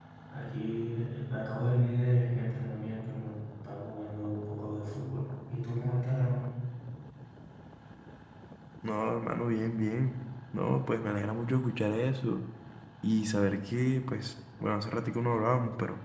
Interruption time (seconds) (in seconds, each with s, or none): none